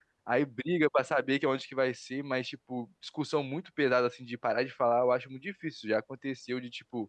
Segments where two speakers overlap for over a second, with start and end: none

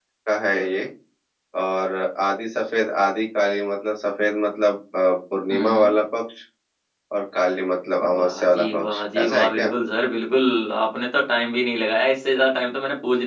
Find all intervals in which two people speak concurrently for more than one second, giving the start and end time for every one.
8.0-9.7

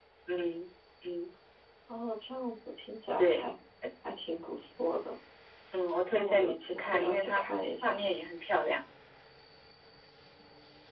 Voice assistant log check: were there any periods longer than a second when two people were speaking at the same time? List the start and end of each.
6.1-7.4

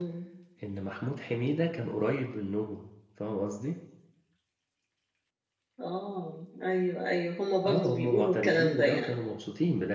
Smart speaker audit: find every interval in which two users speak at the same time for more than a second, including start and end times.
7.6-9.2

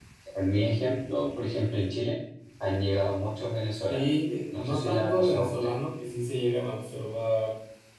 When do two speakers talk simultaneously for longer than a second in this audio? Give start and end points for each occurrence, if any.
4.5-5.8

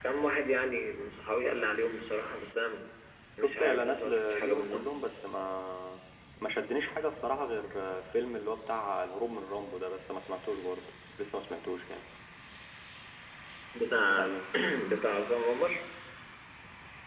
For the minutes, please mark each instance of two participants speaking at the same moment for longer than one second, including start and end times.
3.4-4.9

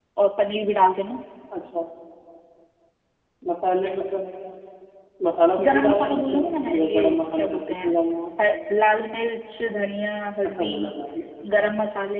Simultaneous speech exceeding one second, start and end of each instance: 5.7-7.9

